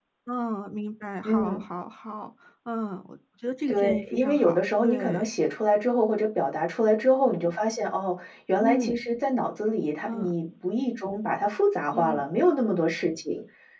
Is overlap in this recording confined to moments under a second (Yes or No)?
No